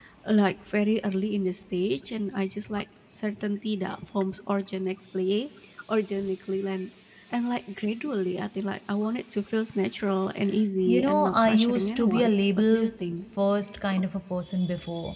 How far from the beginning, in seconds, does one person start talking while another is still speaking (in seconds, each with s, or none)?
10.9 s